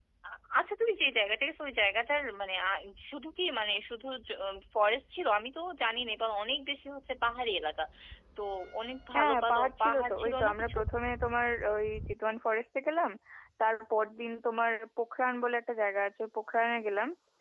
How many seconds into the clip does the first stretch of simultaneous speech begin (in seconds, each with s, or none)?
9.2 s